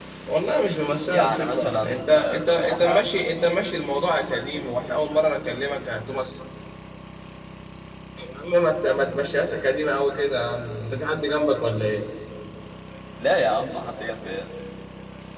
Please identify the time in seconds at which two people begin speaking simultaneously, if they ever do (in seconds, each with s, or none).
1.0 s